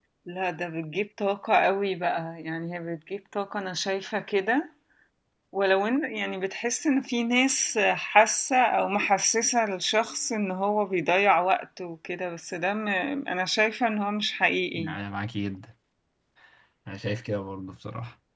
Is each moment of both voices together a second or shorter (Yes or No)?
Yes